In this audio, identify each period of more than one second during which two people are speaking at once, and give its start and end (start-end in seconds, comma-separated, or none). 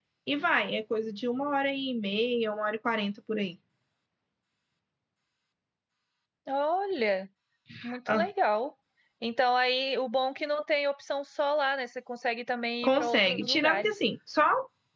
12.8-14.0